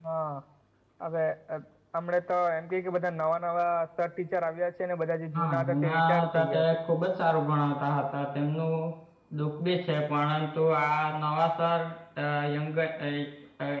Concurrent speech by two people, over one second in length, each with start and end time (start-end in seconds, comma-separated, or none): 5.3-6.6